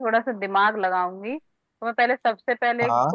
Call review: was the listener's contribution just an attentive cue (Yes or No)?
Yes